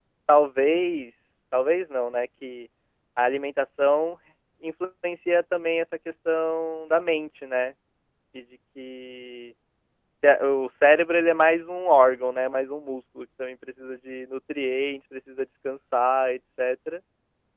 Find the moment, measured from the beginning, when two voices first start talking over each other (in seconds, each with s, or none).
none